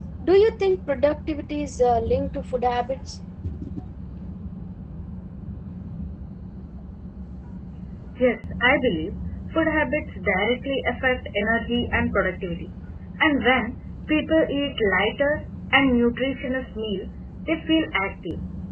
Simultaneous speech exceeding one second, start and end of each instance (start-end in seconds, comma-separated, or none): none